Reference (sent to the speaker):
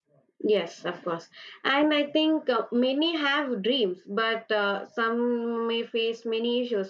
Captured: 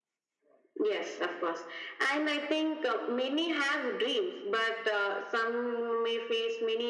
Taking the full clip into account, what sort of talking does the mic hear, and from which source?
echo only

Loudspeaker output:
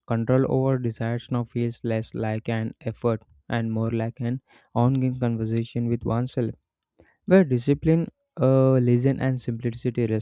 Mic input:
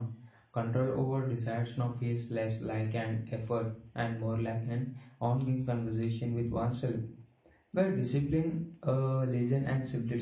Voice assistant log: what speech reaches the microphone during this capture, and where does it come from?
echo only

